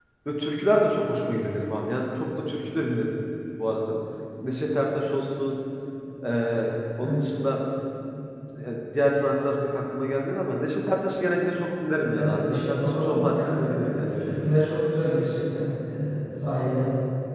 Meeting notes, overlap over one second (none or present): present